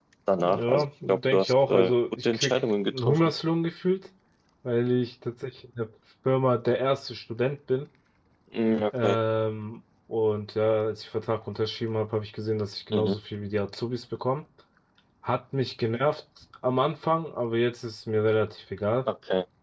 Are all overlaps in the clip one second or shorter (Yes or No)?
No